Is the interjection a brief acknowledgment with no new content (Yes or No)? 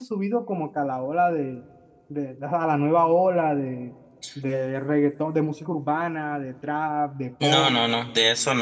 No